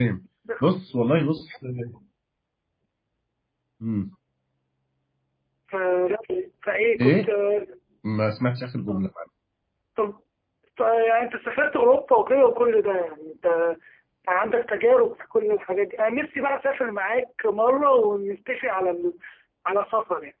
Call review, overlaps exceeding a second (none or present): none